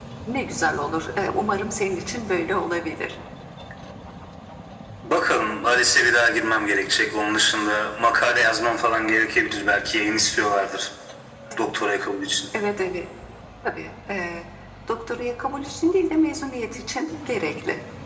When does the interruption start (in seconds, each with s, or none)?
none